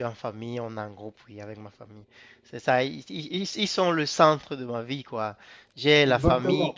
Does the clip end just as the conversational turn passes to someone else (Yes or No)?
No